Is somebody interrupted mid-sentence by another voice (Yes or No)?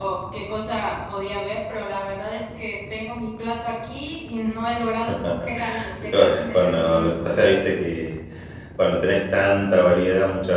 Yes